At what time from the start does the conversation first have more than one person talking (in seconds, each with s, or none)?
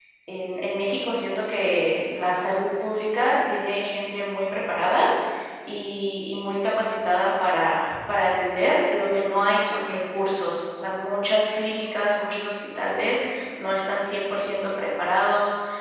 none